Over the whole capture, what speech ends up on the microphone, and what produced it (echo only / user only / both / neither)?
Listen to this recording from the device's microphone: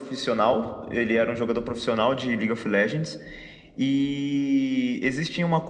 echo only